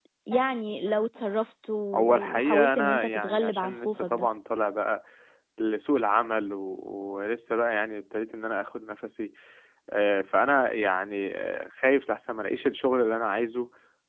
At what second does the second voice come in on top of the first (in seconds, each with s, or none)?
1.9 s